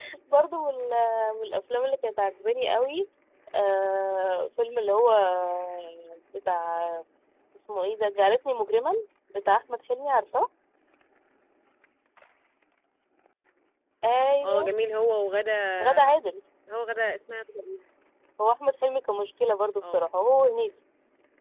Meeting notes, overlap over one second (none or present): none